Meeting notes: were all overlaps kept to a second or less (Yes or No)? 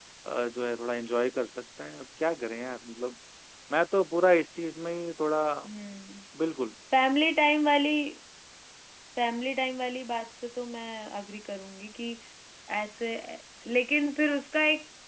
Yes